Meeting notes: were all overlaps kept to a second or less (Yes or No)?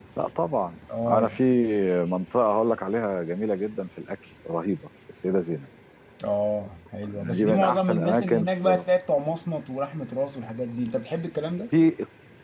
No